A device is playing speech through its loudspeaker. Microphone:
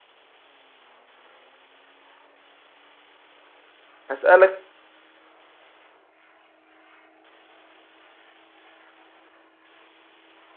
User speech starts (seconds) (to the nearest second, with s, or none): 4 s